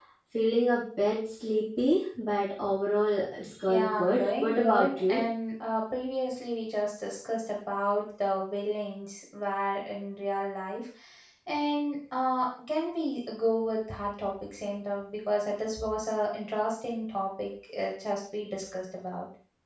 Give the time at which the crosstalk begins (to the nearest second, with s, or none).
4 s